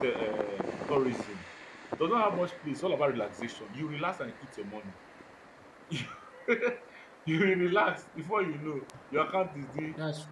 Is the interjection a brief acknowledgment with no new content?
Yes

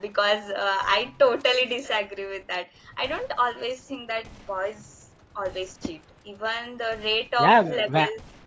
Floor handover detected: Yes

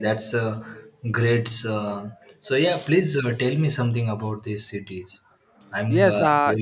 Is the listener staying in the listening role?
No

